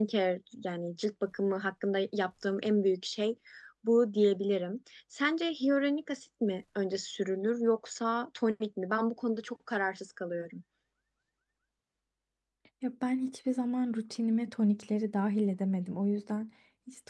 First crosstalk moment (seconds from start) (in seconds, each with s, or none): none